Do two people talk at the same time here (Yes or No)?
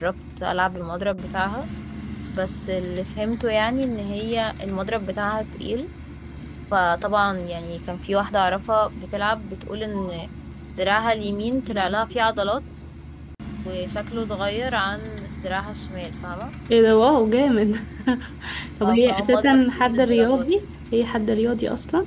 Yes